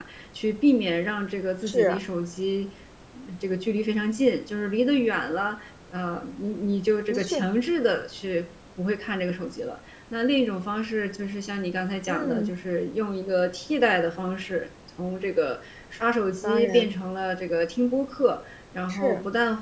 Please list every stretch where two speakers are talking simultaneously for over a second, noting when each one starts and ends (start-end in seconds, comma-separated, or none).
none